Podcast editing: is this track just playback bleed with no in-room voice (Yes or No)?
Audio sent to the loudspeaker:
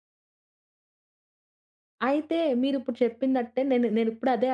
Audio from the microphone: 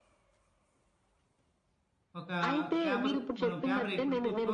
No